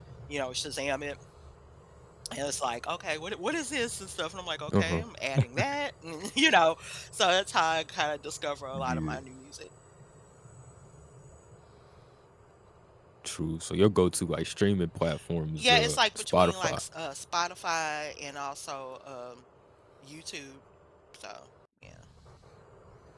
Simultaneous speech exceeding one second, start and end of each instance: 15.6-16.8

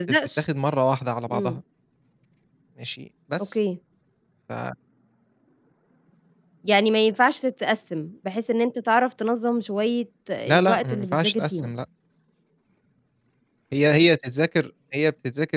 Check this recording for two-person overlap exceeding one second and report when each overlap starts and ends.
10.5-11.7

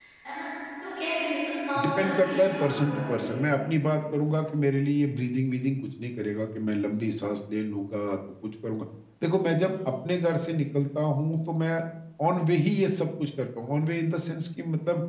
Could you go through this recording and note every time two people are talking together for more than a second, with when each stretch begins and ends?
1.8-3.4

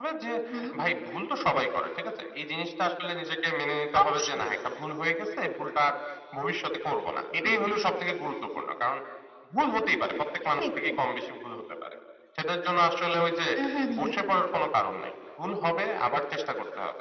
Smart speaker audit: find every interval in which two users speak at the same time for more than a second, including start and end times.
none

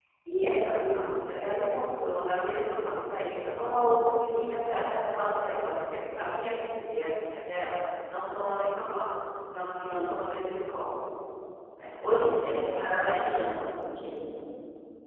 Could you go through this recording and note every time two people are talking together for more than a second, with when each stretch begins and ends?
12.0-13.6

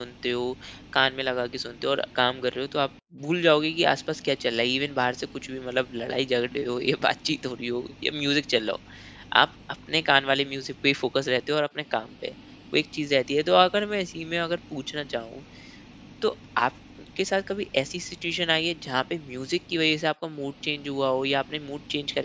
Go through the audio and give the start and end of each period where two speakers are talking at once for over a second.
none

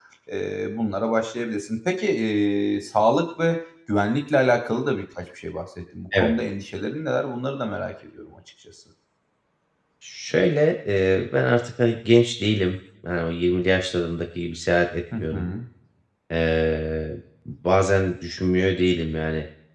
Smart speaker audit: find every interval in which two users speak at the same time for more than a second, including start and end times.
none

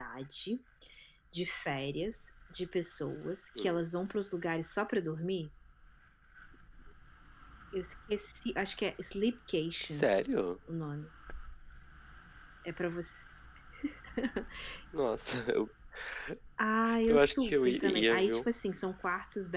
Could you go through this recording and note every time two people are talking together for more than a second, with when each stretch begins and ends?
17.1-18.4

